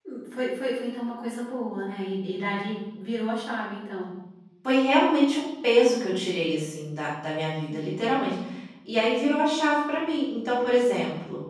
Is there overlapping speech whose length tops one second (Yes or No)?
No